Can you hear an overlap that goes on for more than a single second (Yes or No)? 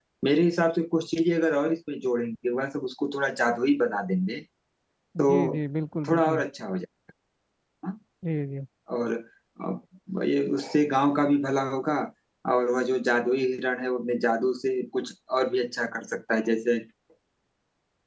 No